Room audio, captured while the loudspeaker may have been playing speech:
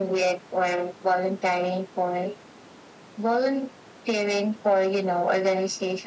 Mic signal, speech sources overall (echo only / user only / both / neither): echo only